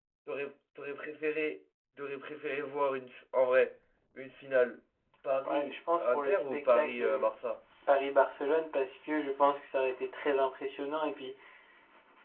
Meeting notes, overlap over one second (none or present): present